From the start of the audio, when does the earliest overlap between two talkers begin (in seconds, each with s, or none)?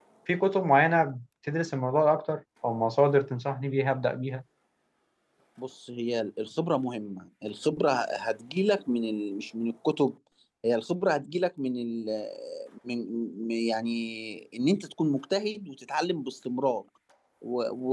none